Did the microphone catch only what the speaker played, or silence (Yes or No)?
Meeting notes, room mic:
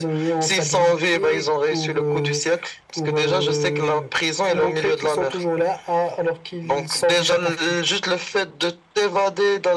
Yes